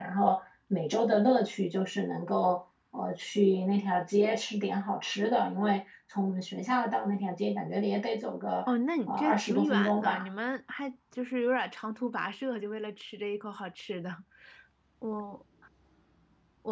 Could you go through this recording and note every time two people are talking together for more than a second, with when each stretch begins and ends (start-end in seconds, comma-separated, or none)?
9.1-10.3